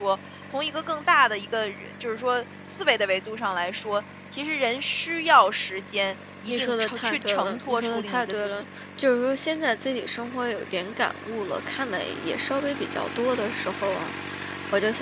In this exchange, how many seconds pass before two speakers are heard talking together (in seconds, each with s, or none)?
6.5 s